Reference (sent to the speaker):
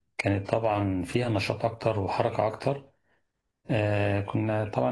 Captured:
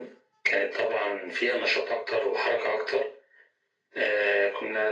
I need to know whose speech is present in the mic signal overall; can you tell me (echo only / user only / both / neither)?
echo only